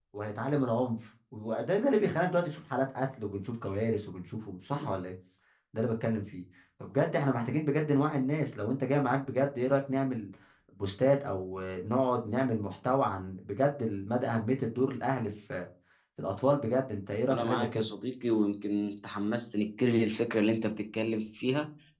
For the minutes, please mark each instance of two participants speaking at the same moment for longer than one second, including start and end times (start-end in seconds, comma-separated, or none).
none